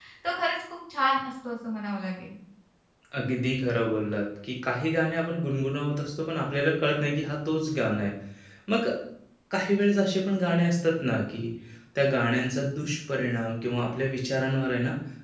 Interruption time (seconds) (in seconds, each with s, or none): none